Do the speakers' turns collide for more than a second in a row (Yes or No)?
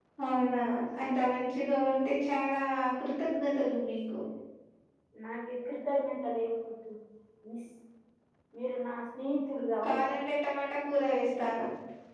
No